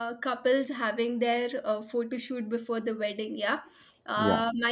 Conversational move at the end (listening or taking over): listening